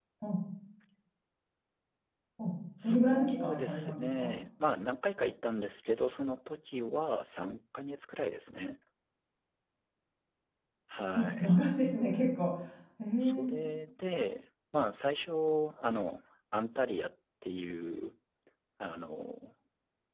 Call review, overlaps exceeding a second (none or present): present